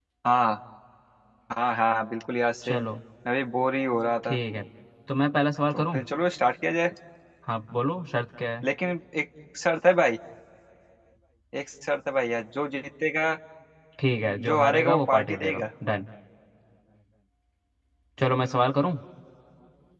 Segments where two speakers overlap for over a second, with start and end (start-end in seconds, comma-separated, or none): 14.4-15.7